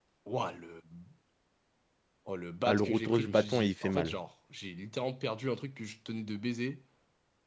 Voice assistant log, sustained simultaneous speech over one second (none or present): present